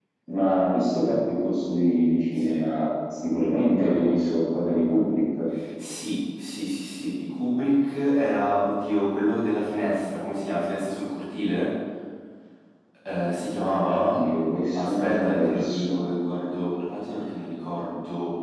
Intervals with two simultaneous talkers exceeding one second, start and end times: 14.7-16.0

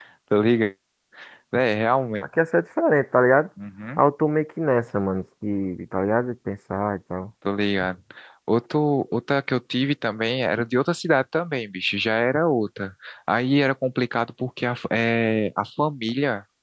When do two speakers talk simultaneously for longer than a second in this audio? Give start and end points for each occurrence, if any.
none

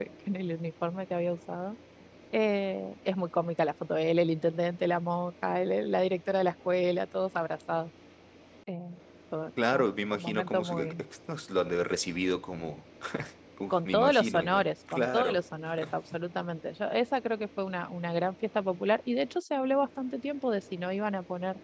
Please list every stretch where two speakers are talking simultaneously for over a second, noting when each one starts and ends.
9.7-11.0, 13.7-15.4

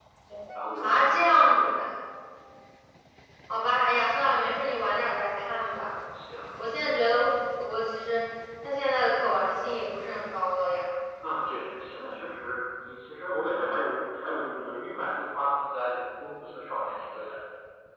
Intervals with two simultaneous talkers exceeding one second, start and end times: none

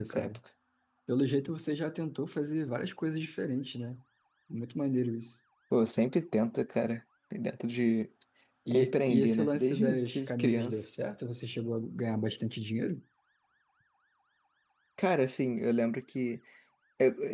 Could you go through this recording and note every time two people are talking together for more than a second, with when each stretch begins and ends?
8.7-10.8

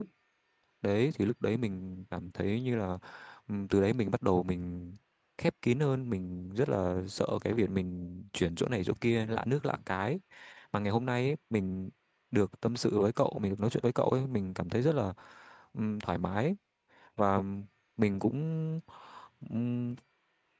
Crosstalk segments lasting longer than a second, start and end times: none

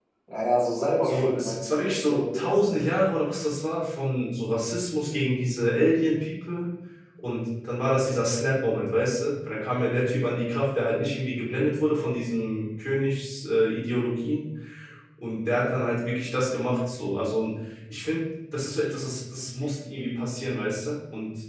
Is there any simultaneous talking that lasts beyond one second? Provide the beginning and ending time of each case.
1.0-2.8

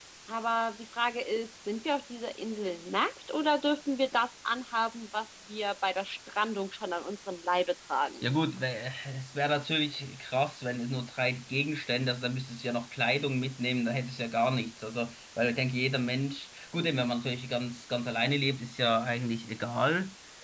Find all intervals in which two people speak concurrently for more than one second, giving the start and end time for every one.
none

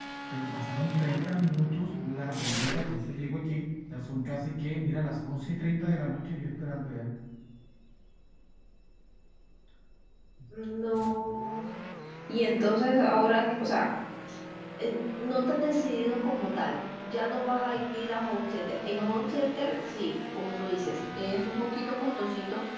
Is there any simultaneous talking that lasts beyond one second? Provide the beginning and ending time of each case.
none

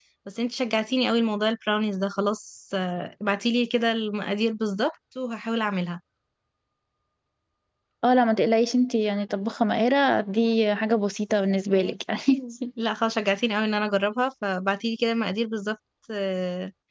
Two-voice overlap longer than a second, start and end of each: none

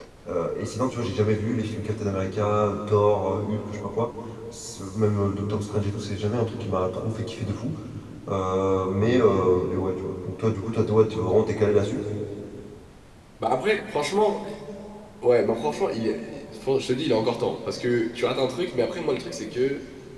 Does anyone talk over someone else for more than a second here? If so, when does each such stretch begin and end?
none

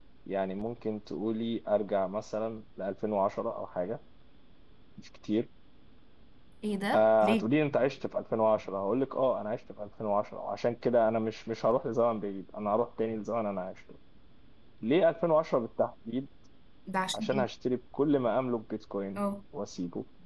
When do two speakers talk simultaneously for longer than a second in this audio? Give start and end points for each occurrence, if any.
none

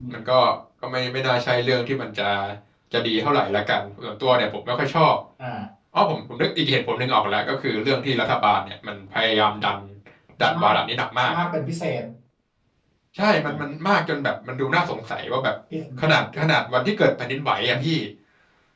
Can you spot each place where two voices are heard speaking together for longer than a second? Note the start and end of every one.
none

